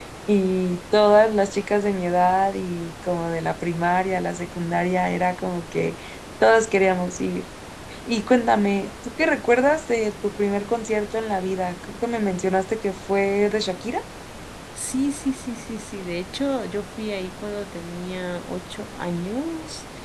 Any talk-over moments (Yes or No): No